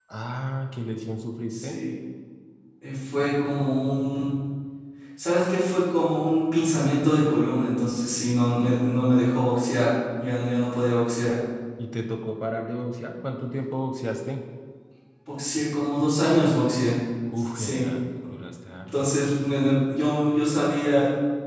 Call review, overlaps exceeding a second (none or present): none